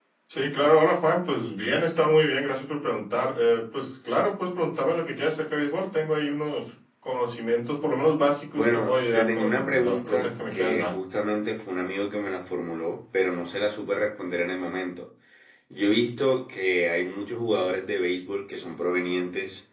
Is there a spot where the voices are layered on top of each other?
Yes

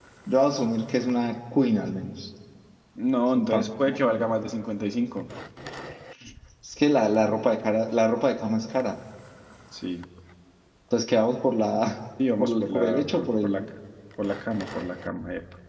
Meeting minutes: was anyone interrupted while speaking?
Yes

